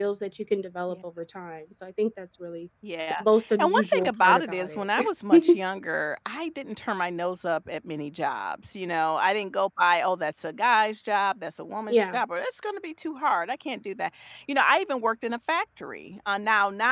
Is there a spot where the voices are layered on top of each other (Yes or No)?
Yes